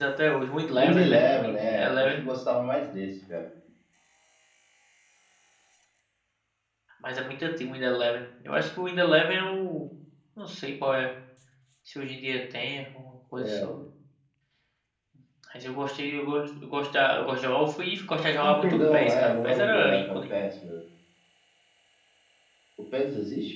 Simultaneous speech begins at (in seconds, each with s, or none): 0.8 s